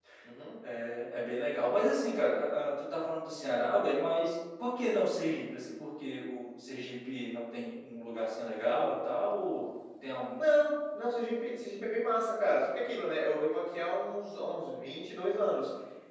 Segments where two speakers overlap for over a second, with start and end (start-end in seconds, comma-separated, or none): none